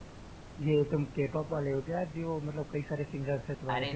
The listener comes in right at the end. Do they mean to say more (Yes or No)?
Yes